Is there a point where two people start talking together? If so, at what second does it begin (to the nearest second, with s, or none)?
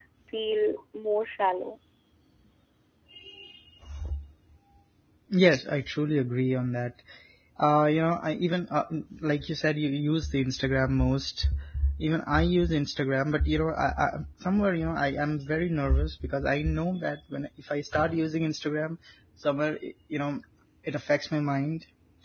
none